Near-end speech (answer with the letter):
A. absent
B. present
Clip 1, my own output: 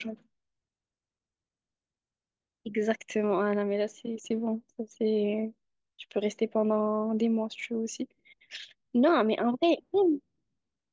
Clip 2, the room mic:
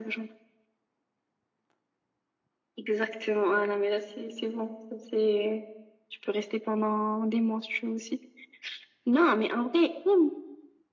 A